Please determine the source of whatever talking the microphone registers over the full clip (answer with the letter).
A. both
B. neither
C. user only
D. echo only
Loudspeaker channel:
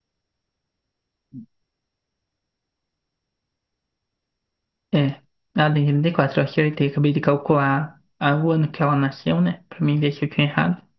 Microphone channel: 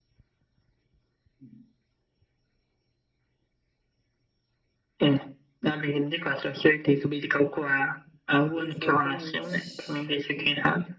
A